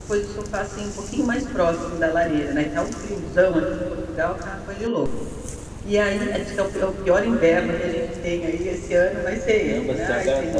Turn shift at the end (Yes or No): Yes